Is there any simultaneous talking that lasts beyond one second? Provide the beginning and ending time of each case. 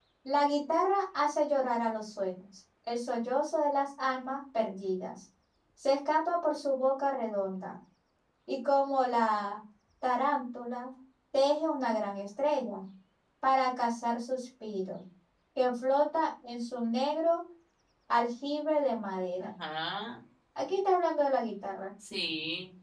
none

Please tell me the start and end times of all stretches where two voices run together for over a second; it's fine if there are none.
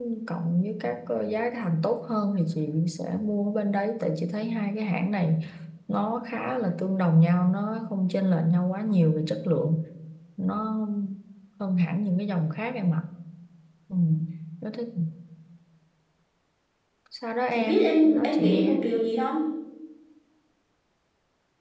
17.5-18.8

